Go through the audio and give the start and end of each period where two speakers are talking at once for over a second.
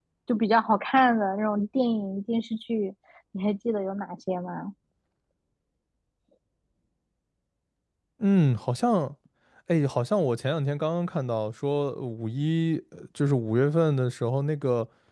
none

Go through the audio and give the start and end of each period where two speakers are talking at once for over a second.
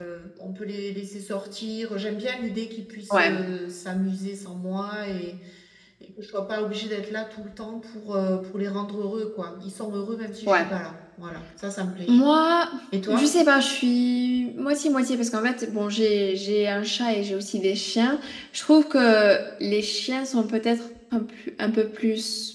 none

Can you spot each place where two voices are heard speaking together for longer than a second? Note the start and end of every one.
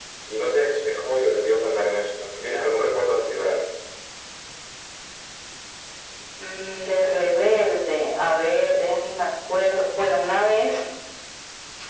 none

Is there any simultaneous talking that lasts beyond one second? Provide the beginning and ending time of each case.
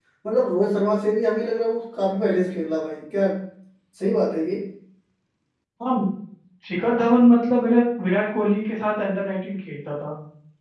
none

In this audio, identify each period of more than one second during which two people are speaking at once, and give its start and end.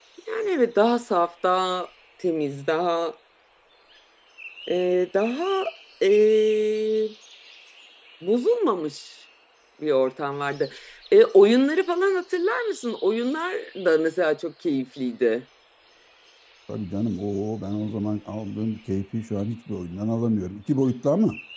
none

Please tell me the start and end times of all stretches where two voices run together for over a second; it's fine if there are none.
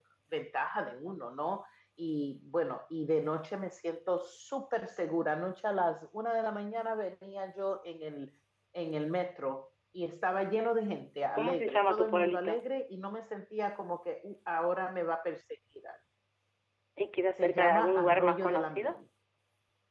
11.4-12.7, 17.4-19.0

